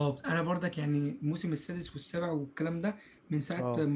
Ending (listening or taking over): listening